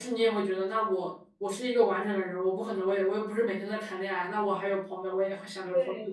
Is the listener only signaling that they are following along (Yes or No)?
No